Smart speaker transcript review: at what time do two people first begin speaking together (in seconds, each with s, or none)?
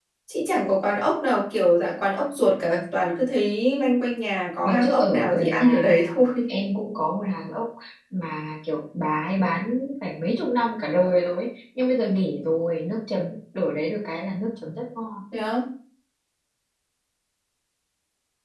4.6 s